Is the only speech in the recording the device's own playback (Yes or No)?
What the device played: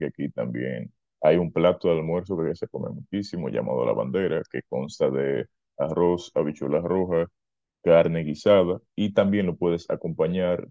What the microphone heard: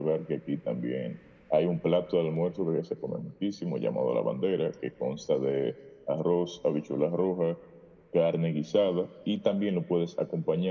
Yes